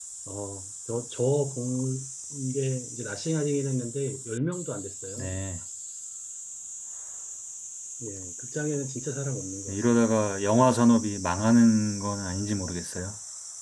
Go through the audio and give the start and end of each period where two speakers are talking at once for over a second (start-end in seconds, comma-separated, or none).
none